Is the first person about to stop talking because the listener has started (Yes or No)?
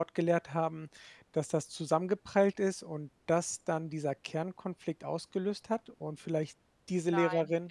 Yes